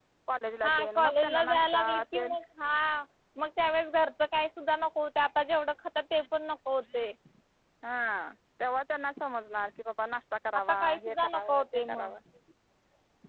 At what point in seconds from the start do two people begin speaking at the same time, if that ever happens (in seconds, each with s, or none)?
0.6 s